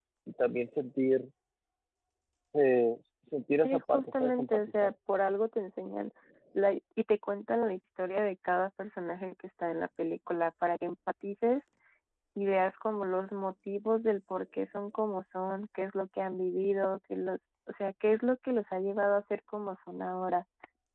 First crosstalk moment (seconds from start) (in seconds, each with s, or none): 3.6 s